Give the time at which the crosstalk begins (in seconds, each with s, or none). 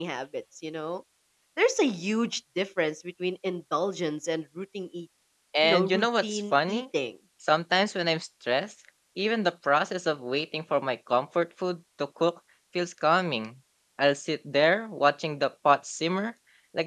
5.6 s